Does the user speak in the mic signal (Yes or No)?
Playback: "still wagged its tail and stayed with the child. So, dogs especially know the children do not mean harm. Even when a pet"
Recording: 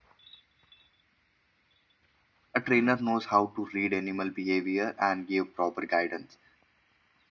Yes